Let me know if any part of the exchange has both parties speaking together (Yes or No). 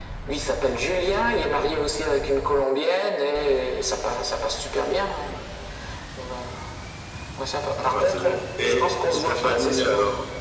Yes